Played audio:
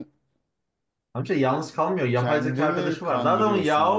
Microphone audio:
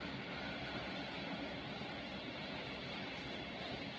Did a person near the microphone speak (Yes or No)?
No